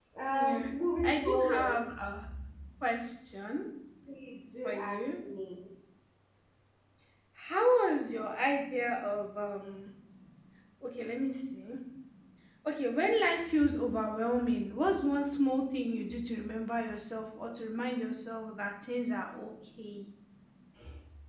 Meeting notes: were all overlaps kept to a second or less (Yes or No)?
No